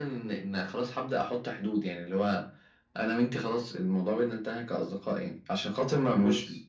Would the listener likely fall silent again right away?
Yes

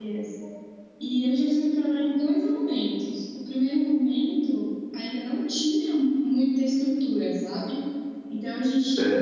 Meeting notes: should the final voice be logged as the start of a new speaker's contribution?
No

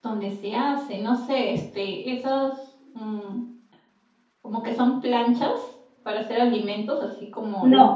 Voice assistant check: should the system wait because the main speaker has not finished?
No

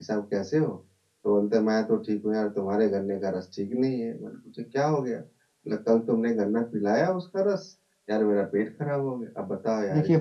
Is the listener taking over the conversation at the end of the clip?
Yes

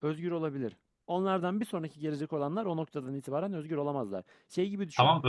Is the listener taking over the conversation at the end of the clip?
Yes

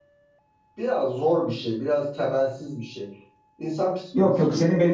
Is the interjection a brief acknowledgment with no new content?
No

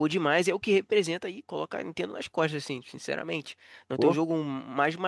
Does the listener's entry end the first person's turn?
No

